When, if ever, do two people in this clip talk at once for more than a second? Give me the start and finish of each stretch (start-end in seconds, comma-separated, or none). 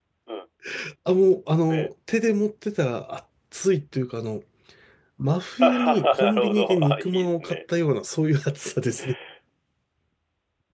5.6-7.6